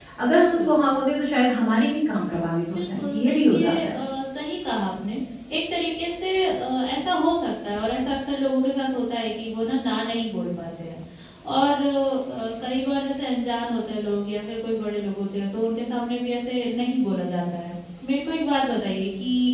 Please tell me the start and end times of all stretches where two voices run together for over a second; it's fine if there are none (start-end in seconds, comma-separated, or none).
2.7-4.0